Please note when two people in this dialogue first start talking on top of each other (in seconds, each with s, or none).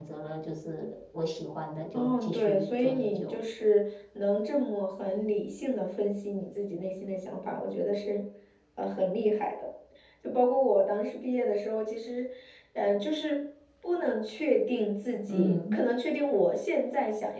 1.9 s